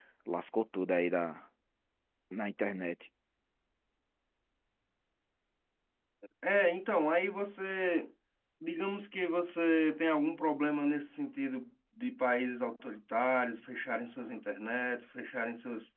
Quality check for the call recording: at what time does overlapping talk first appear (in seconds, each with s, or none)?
none